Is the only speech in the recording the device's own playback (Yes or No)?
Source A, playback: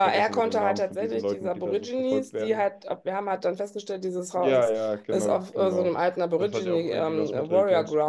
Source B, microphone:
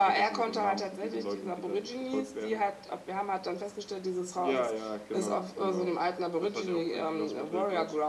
Yes